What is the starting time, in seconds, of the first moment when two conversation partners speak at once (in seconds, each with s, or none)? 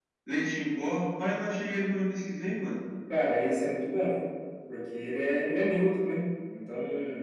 none